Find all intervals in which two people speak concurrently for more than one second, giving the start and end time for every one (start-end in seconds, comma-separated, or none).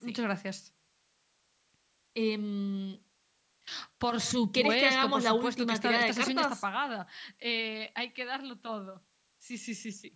4.5-6.6